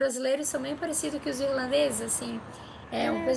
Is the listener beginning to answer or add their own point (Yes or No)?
No